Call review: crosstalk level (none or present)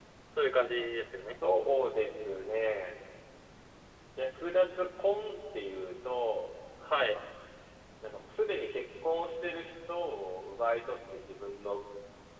none